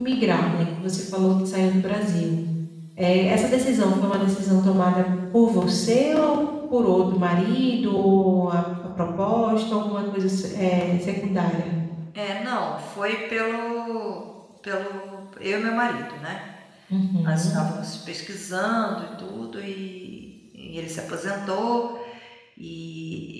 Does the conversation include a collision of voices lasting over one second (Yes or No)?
No